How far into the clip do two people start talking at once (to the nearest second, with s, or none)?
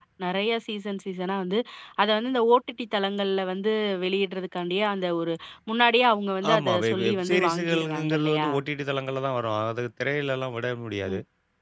7 s